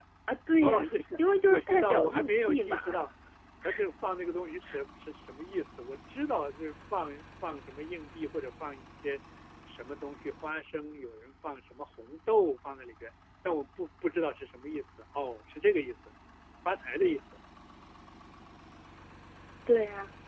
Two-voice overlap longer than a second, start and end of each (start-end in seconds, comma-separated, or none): 1.5-3.0